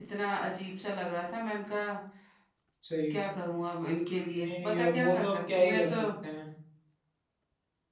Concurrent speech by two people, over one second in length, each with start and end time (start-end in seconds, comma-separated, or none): 4.3-5.9